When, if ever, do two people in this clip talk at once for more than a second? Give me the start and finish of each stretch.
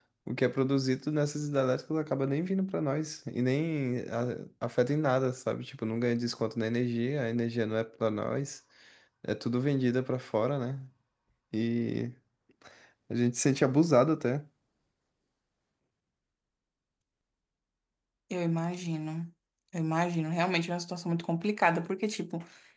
none

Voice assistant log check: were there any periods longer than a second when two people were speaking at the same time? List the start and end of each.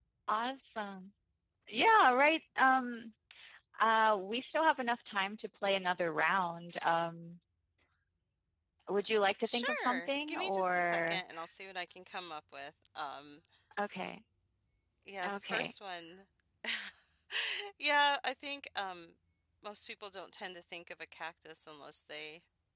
9.4-11.2

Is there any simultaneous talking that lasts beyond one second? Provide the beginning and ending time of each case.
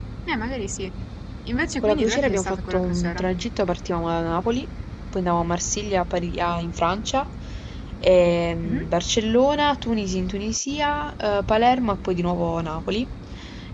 1.8-3.2

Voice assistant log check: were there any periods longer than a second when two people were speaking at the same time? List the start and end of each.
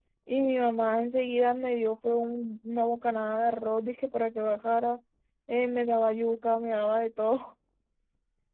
none

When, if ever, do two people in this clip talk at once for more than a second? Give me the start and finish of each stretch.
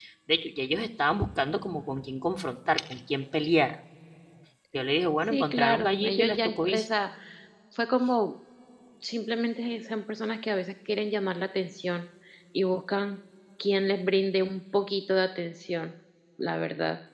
5.3-6.9

